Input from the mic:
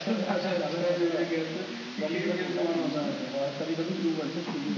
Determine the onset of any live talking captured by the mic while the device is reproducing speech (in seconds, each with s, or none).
none